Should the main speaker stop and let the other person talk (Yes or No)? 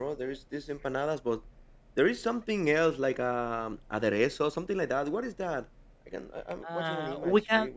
Yes